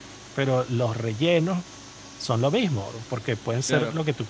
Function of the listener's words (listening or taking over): listening